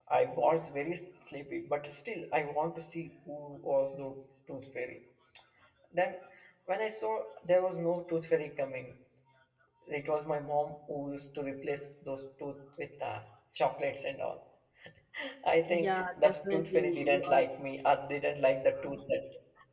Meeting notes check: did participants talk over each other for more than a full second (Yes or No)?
Yes